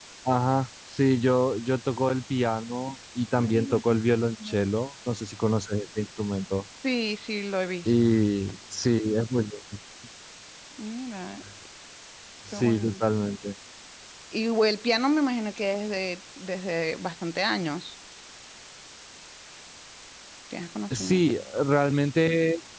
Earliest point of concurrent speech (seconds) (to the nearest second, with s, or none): 3 s